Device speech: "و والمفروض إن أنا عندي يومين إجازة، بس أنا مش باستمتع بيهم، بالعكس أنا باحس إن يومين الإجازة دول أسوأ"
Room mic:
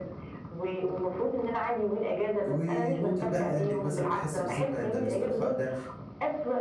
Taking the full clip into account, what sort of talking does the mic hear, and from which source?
both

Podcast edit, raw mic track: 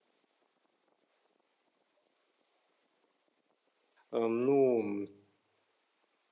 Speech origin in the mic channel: user only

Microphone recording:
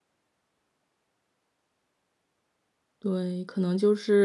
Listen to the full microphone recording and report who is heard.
user only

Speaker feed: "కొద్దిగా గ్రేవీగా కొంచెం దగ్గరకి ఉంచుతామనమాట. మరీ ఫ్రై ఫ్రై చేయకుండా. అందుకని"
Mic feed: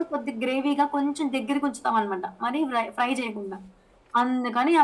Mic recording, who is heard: echo only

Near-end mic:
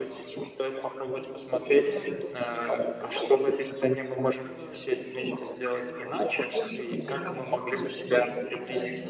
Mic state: both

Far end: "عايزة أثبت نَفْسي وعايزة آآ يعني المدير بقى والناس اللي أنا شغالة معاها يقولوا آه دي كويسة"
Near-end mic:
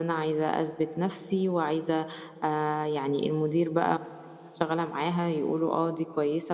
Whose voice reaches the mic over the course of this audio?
echo only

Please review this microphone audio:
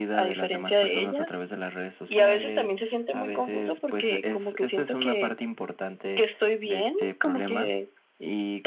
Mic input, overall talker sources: echo only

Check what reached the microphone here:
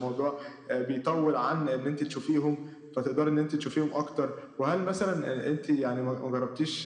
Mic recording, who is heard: echo only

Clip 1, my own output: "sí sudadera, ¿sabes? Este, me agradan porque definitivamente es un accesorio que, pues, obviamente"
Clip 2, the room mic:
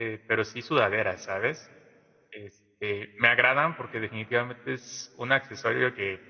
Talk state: echo only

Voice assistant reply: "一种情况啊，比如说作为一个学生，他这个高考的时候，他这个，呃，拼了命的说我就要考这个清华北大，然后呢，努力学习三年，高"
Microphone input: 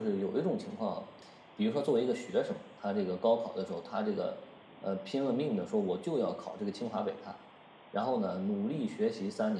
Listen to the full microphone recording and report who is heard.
echo only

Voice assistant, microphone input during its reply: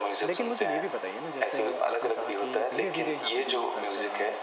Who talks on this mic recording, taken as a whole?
both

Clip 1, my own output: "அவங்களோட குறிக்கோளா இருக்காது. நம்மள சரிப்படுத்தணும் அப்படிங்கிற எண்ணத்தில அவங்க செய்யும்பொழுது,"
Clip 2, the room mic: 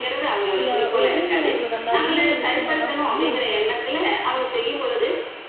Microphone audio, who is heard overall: both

